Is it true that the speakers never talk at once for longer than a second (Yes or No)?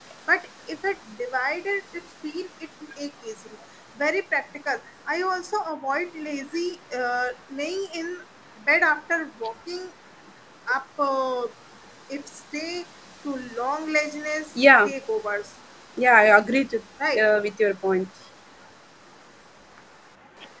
Yes